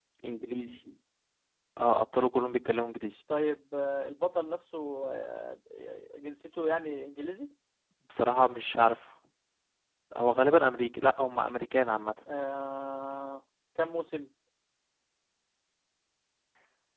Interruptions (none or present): none